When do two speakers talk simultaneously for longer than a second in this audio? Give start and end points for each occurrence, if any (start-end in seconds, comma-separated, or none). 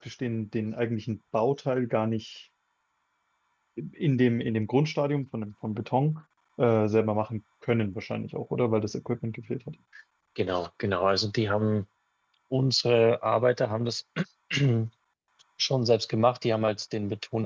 none